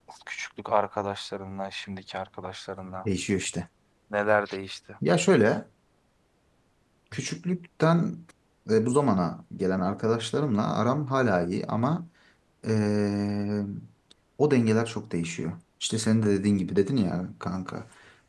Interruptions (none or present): none